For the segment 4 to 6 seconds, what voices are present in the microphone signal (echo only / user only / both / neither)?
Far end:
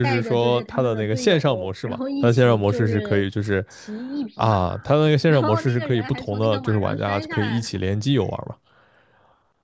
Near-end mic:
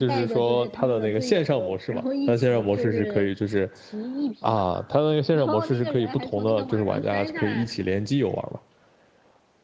echo only